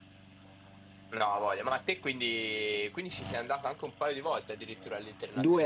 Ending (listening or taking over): taking over